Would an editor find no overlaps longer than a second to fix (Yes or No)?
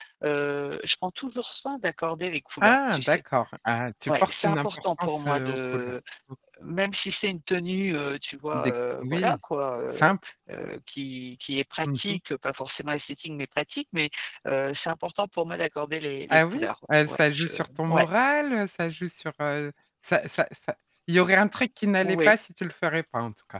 No